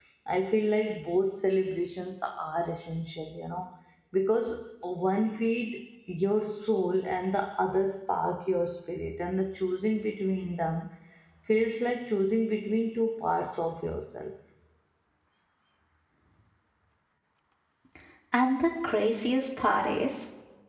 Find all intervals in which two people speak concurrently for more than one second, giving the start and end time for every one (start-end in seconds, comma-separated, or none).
none